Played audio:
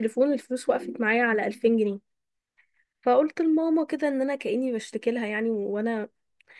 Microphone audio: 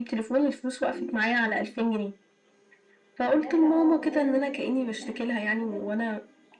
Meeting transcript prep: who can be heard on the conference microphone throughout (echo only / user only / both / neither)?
both